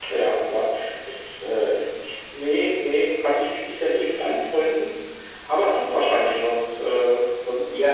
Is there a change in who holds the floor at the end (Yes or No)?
Yes